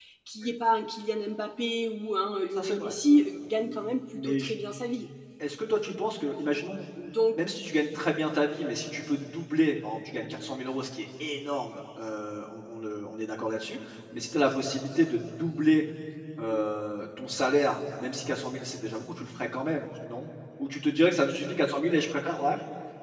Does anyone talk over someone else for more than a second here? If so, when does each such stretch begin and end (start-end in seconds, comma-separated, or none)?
none